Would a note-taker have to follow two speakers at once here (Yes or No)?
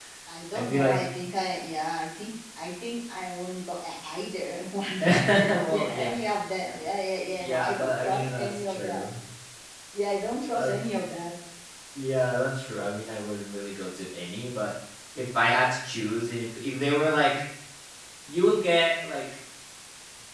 Yes